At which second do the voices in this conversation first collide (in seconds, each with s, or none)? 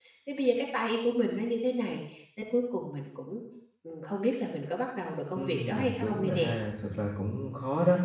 5.3 s